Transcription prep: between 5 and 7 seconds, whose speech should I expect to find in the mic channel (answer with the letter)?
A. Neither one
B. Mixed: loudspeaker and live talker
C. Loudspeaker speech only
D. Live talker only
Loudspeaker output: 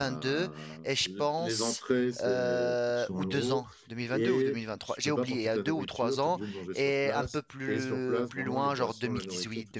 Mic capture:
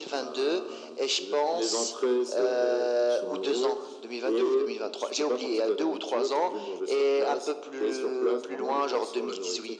C